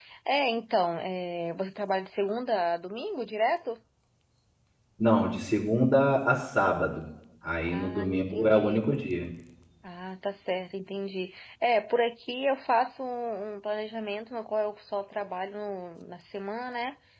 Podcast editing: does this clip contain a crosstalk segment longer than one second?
Yes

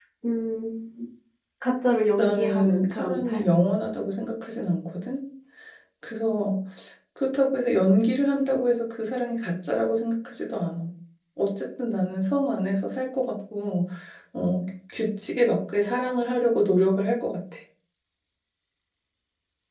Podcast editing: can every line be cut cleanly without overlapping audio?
No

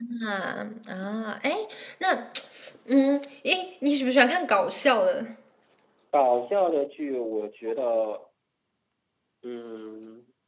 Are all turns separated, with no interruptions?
Yes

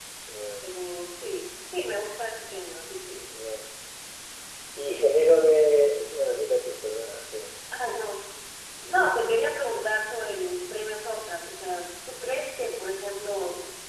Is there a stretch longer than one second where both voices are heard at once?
No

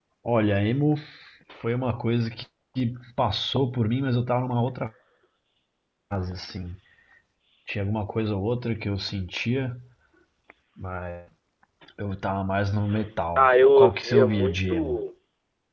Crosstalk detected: Yes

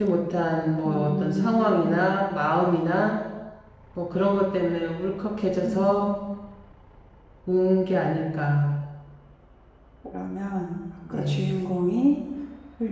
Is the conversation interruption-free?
No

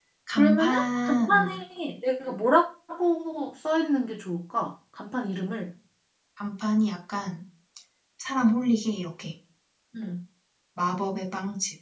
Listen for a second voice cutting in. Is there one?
Yes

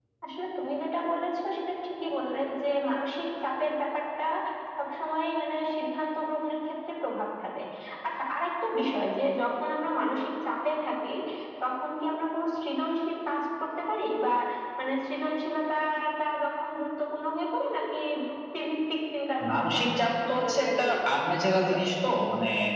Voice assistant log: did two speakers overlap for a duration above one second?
Yes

